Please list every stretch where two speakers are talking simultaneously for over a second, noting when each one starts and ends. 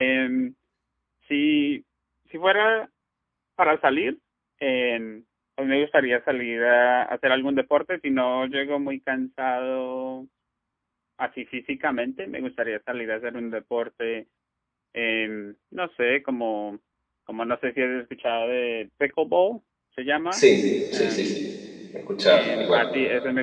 none

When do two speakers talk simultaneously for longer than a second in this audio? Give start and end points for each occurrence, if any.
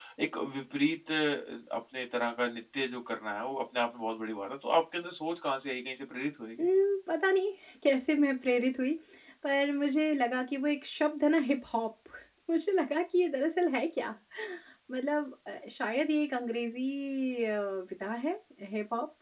none

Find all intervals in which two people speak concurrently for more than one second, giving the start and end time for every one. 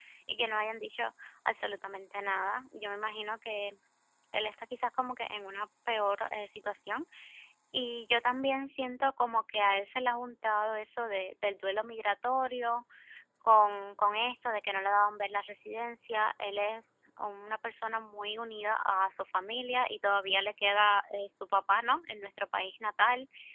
none

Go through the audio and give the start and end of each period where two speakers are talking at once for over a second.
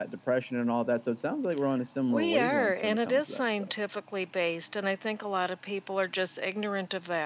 2.1-3.7

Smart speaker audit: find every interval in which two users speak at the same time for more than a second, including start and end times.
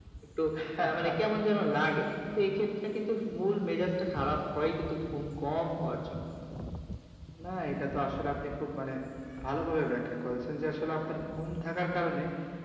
none

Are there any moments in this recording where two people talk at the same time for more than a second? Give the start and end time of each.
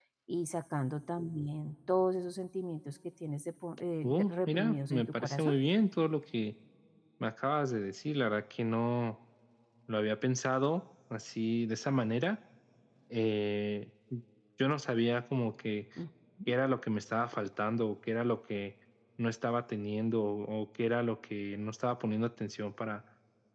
4.0-5.5

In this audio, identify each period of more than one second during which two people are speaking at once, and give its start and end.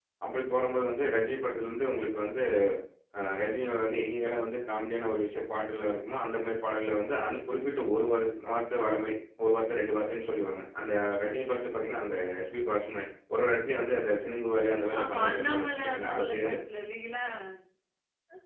15.0-16.6

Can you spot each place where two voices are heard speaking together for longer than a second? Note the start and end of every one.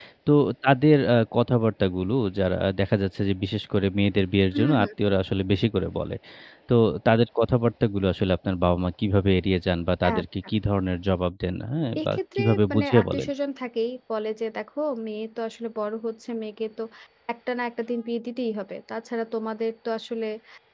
12.0-13.3

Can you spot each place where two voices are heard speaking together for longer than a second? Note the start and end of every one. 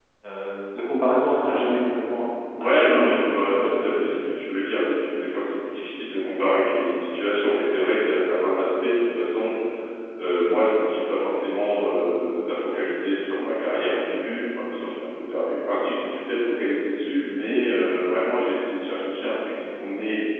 2.6-4.1

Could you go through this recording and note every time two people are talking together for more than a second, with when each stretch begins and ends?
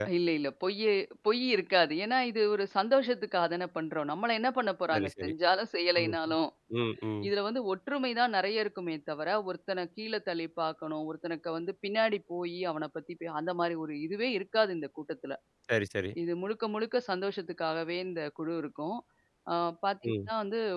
none

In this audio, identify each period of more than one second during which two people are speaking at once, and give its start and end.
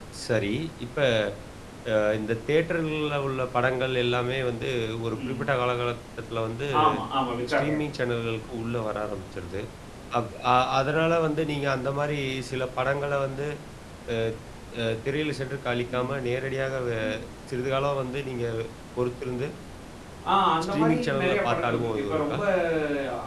20.7-22.4

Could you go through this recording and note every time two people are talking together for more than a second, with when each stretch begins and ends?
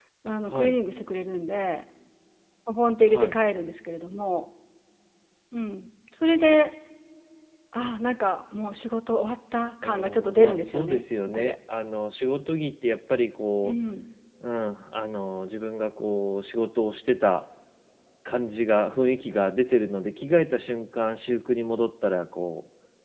9.8-11.5

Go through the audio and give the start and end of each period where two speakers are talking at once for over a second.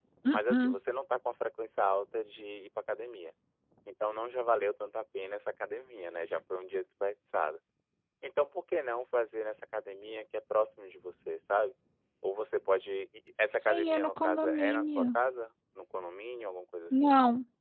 13.6-15.1

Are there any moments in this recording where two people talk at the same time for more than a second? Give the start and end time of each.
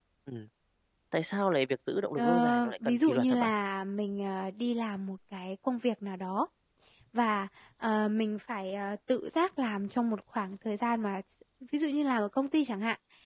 2.2-3.5

